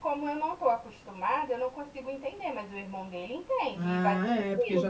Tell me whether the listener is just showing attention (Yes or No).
No